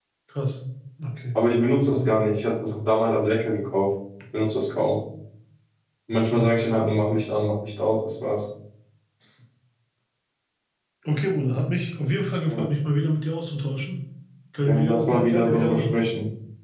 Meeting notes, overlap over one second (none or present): present